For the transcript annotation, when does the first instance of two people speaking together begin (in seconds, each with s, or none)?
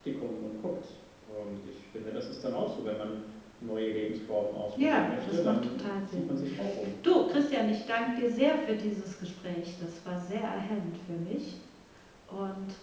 4.7 s